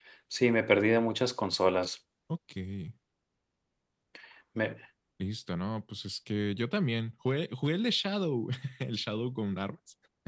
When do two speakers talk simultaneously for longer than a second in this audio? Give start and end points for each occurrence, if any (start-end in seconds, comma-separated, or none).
none